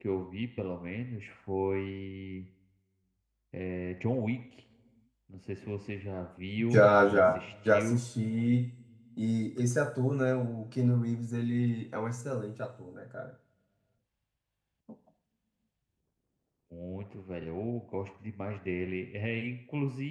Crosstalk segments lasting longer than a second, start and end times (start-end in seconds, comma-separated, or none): 6.7-8.0